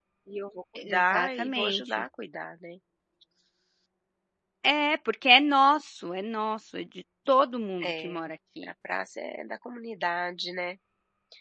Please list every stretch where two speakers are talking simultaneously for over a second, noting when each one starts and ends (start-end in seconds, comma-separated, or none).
0.8-2.0